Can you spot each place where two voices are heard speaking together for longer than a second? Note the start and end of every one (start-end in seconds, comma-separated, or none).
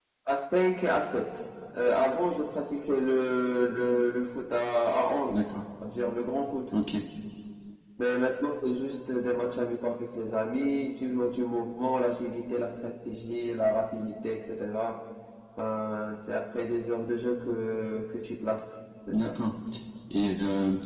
none